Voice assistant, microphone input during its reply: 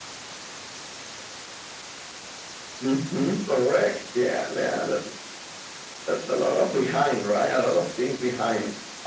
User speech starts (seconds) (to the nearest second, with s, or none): none